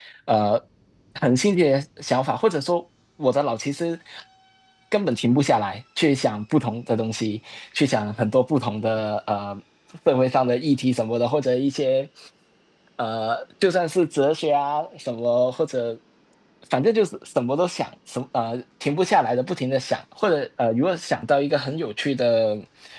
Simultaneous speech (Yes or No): No